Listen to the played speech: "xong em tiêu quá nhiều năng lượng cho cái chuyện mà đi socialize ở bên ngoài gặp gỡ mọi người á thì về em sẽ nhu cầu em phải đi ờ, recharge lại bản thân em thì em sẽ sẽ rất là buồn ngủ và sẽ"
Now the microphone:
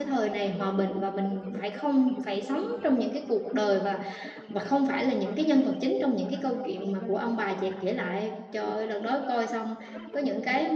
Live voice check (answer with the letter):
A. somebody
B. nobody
A